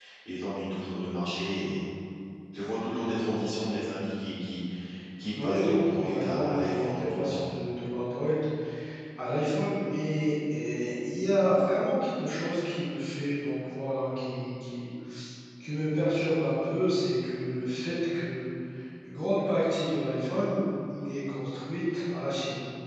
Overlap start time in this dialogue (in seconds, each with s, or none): 5.4 s